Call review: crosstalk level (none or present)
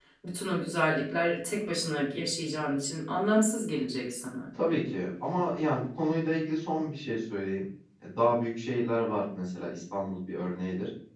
none